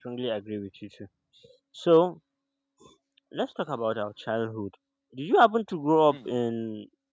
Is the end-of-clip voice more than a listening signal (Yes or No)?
No